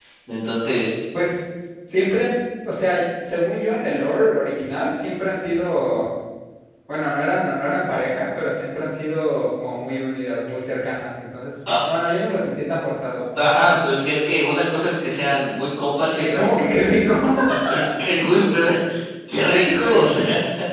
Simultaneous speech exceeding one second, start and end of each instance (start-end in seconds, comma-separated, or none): none